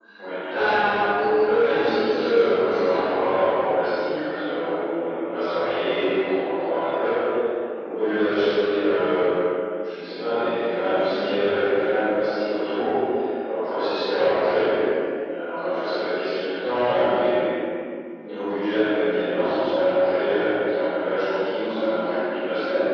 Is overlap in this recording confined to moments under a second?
No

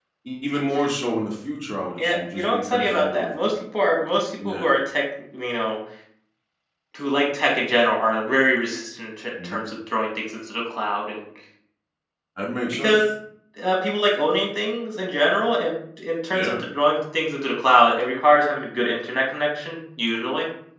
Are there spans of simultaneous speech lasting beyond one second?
Yes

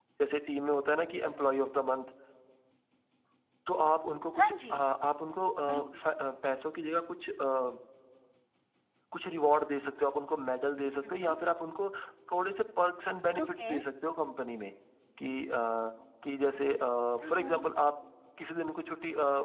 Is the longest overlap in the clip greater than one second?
No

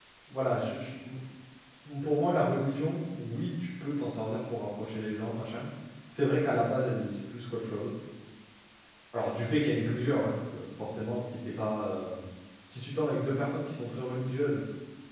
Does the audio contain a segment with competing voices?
No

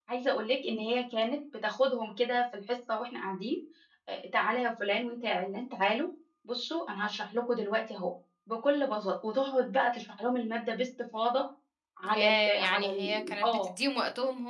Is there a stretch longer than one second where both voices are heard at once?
Yes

